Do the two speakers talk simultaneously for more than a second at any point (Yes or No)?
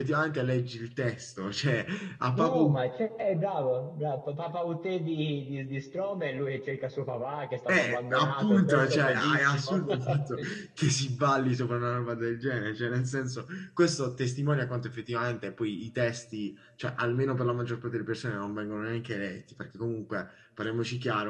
Yes